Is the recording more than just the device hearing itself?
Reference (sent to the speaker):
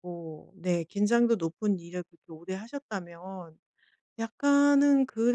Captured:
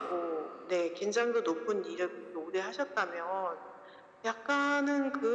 No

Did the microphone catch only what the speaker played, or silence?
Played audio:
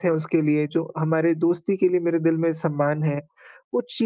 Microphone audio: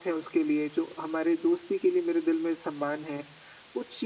Yes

